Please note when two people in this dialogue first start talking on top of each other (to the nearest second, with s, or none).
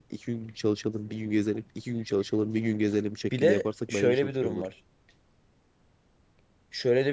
3 s